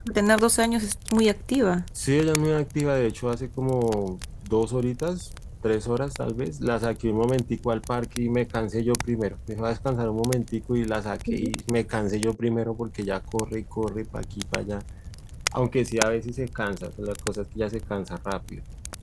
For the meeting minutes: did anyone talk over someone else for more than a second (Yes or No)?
No